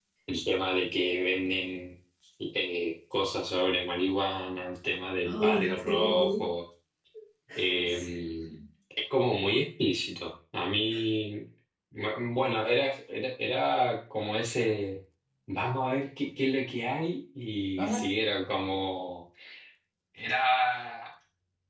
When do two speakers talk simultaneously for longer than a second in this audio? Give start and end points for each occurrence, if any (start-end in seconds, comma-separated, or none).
5.2-6.5